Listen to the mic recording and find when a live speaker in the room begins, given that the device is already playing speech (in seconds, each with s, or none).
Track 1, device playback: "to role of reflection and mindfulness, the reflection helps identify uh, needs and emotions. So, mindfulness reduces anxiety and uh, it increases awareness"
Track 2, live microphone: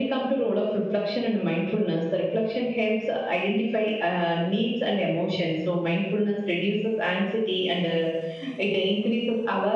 none